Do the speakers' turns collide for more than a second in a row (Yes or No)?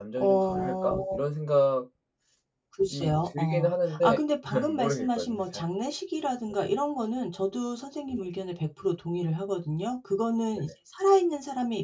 Yes